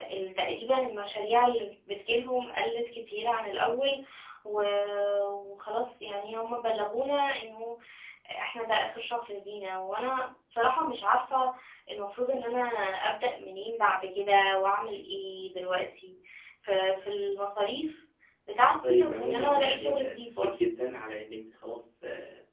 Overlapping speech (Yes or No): Yes